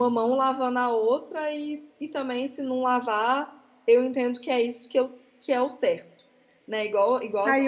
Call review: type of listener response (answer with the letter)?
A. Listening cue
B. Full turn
B